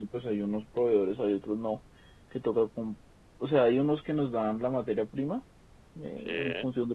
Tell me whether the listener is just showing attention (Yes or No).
Yes